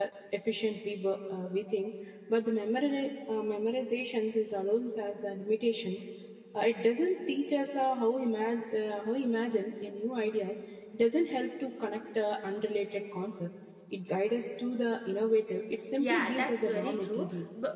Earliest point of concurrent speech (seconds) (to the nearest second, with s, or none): 16 s